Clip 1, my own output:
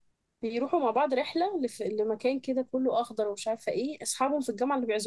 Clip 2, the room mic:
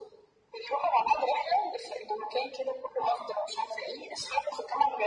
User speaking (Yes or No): No